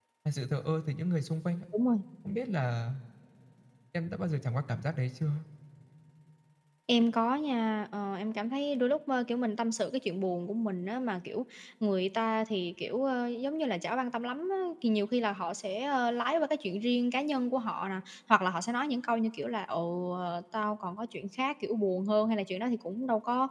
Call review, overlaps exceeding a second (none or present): none